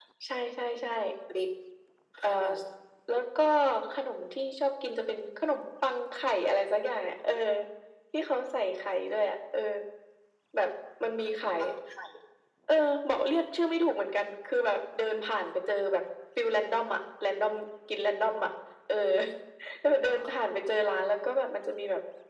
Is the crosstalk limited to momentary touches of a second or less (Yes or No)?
Yes